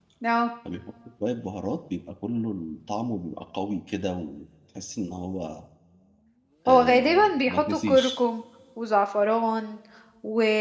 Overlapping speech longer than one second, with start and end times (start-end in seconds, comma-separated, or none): 6.7-8.2